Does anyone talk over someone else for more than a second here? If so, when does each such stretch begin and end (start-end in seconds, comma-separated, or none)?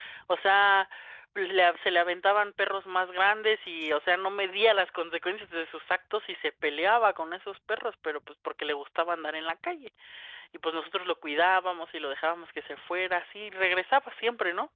none